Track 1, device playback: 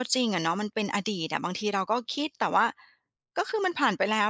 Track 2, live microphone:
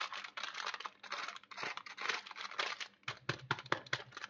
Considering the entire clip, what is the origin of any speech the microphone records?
neither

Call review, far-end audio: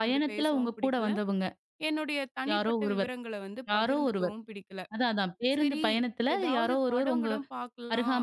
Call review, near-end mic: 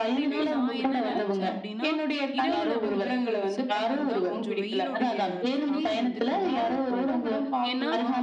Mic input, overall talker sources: both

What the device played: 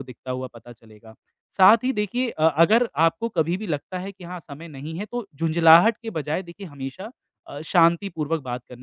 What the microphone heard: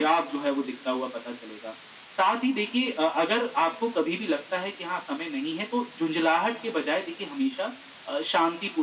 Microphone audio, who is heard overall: echo only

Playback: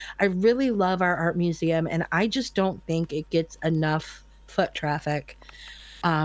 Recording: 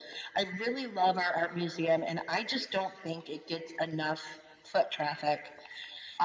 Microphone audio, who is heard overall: echo only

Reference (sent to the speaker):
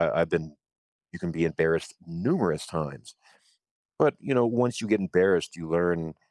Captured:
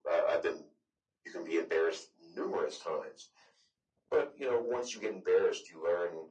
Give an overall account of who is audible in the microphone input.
echo only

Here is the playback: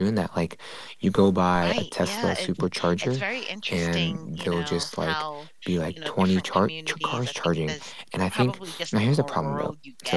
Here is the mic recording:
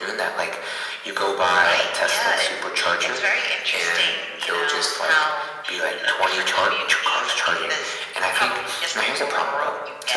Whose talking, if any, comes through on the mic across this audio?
echo only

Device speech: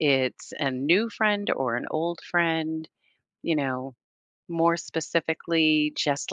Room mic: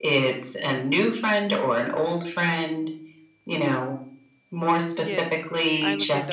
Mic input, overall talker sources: both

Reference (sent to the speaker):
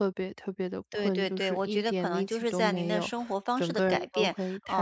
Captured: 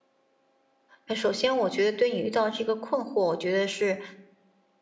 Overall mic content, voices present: user only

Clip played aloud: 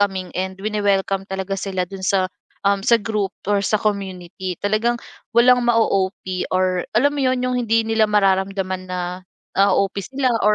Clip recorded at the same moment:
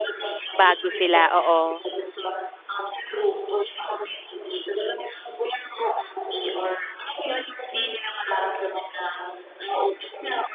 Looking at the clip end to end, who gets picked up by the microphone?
both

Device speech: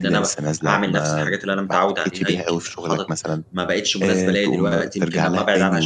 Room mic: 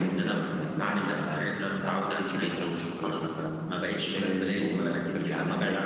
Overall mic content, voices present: echo only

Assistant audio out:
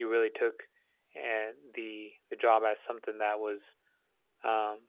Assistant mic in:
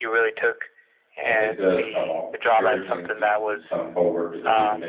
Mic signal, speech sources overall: both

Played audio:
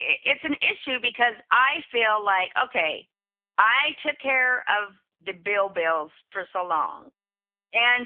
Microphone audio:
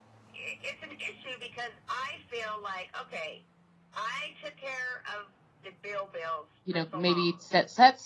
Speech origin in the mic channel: both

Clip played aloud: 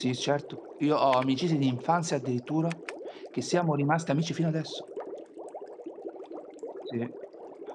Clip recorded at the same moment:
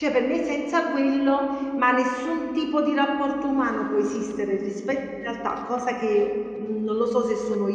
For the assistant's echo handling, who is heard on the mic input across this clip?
user only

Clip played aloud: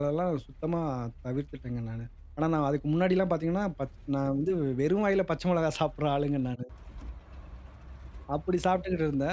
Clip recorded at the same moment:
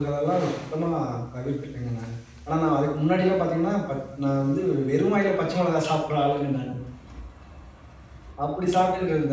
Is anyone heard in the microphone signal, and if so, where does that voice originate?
echo only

